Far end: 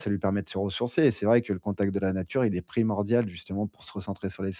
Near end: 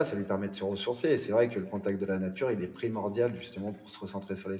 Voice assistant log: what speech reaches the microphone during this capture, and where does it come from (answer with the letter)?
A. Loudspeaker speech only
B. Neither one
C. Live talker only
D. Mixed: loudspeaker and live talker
A